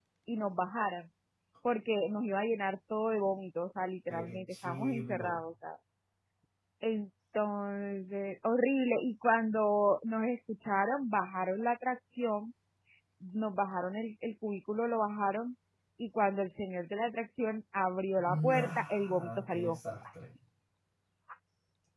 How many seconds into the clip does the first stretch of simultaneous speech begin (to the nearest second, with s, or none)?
4 s